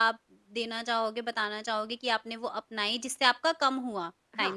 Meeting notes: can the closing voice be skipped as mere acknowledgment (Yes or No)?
No